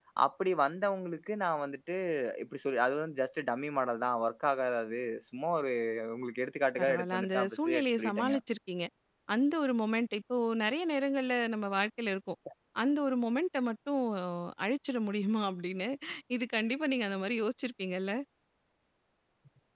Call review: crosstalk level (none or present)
present